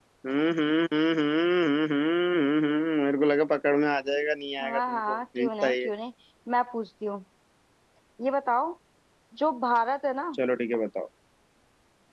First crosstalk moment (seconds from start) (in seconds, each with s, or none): 4.6 s